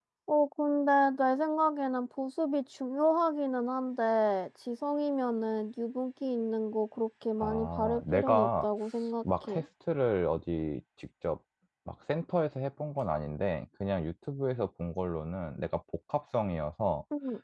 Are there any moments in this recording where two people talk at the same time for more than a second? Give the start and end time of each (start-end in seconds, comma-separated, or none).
7.4-8.7